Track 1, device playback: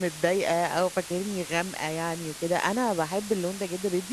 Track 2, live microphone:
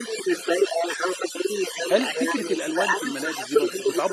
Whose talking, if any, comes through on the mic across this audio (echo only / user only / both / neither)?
both